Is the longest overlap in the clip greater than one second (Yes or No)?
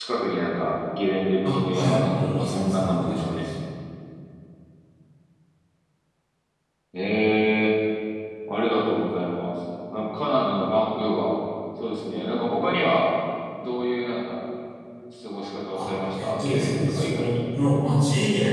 Yes